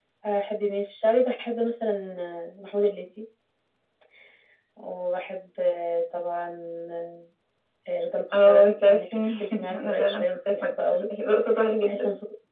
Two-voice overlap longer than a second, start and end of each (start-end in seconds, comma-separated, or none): 8.3-11.0